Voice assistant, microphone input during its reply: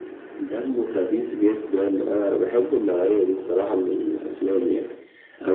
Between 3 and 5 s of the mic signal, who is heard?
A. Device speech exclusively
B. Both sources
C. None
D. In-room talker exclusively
A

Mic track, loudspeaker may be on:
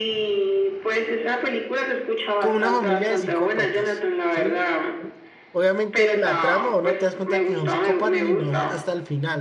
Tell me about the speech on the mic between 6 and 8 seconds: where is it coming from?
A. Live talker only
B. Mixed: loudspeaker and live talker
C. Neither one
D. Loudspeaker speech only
B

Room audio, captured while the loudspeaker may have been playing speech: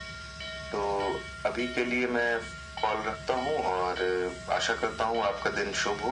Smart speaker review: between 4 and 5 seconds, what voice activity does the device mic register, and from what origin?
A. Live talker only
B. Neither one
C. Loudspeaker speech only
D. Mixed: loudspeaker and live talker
C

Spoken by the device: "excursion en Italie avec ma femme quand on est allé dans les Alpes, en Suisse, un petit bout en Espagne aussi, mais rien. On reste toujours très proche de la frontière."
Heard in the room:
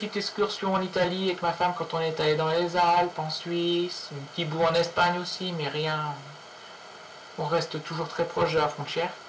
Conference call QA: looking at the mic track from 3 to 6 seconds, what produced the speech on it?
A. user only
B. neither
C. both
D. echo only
D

